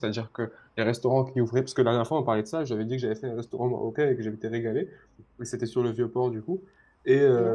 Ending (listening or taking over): listening